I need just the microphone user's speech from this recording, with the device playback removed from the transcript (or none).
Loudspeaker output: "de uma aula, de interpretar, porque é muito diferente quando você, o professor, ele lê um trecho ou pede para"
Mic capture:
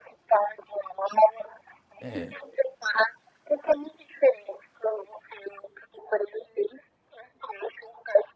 É,